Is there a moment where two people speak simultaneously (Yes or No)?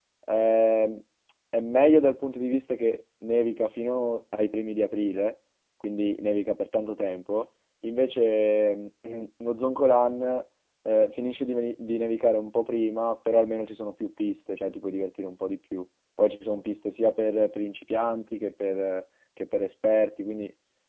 No